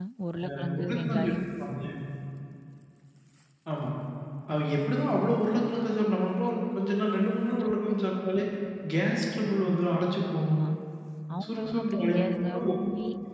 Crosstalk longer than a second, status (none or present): present